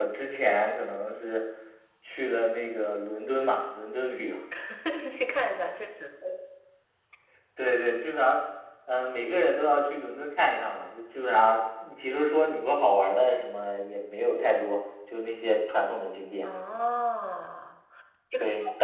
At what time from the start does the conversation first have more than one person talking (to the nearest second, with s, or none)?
none